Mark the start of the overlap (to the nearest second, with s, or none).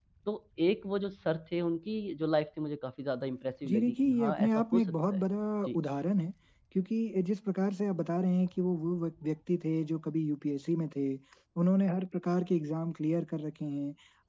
4 s